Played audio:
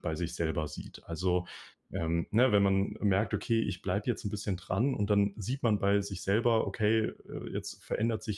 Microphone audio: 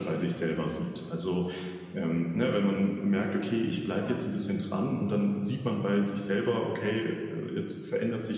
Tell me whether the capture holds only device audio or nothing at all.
No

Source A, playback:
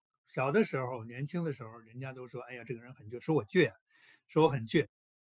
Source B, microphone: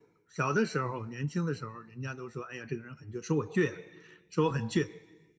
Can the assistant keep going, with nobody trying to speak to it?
Yes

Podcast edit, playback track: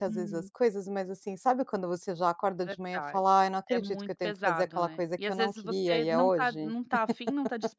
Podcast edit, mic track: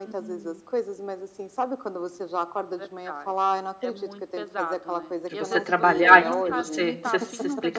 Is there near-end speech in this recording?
Yes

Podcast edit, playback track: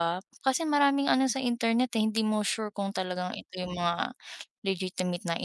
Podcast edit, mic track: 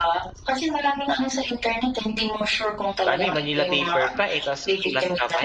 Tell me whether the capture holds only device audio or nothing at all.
No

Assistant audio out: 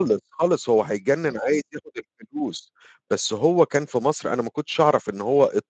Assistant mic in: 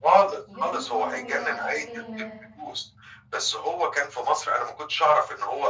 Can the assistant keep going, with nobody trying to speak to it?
No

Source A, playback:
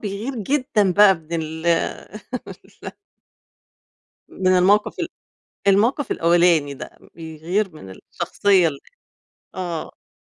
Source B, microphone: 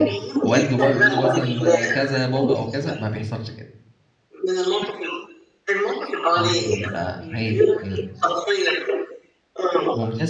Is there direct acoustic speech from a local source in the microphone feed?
Yes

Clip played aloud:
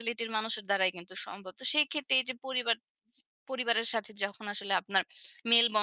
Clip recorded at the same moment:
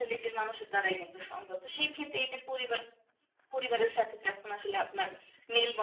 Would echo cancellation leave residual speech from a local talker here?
No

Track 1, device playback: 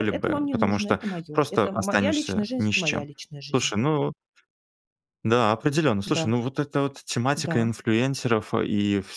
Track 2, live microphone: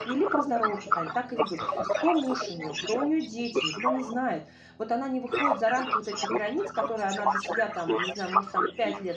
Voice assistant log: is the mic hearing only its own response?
No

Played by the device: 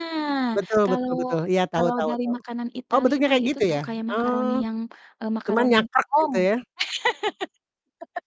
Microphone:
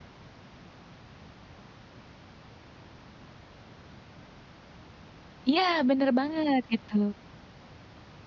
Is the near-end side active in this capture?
Yes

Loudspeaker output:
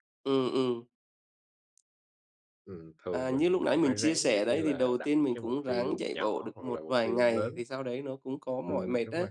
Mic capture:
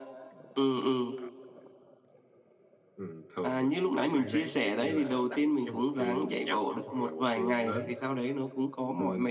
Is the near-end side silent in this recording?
Yes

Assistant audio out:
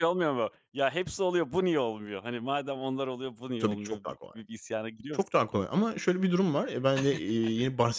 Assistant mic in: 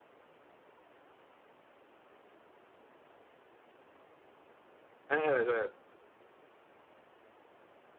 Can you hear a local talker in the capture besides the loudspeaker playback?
Yes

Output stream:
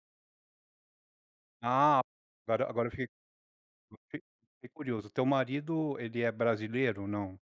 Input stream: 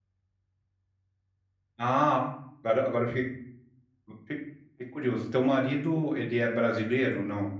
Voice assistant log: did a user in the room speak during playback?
No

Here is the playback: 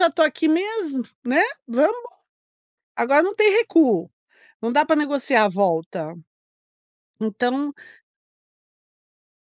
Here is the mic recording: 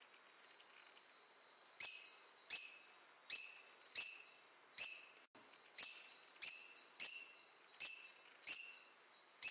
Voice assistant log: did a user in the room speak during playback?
No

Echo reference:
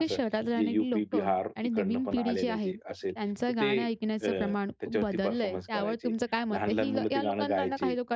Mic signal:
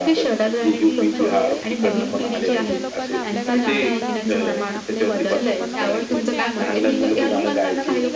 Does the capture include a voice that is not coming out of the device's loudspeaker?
Yes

